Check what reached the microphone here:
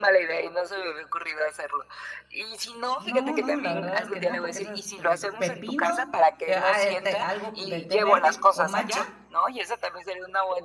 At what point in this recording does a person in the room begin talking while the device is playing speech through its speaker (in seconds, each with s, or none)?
3.0 s